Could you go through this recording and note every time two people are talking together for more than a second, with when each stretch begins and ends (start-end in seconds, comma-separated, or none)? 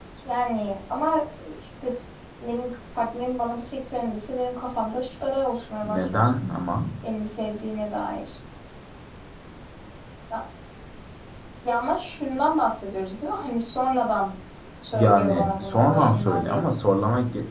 14.9-16.7